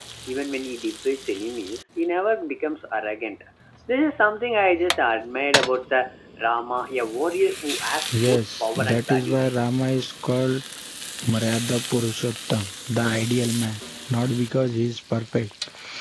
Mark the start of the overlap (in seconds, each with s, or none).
8.1 s